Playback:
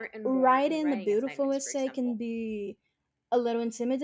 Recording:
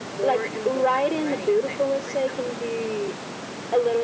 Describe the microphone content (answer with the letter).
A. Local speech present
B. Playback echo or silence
B